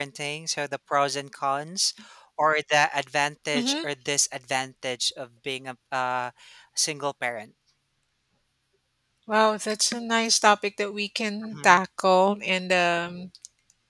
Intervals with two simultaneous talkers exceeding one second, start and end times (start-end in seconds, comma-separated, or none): none